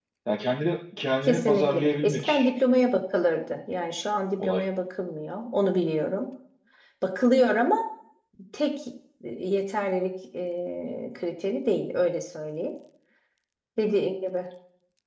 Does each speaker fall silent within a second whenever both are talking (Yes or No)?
No